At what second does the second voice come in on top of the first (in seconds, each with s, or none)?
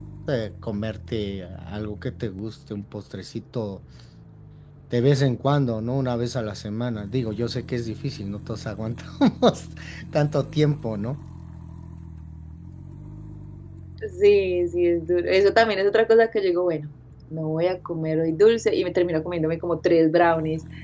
none